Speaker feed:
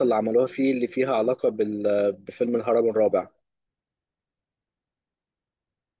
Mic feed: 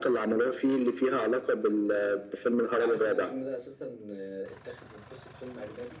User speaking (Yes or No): Yes